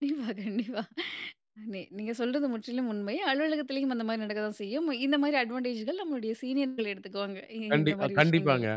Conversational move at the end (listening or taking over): taking over